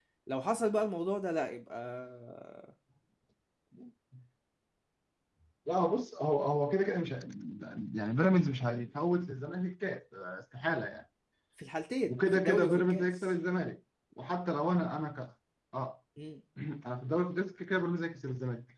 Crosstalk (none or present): present